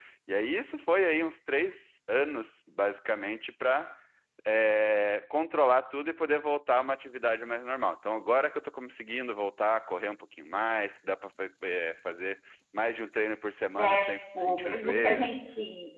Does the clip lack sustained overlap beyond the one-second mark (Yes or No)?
No